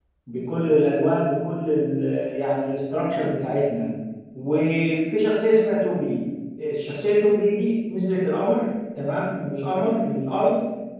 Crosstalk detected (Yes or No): No